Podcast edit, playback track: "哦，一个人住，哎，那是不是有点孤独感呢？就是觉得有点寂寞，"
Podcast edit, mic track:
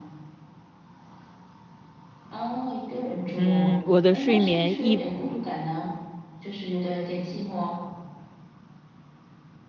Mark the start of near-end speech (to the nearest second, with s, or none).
3 s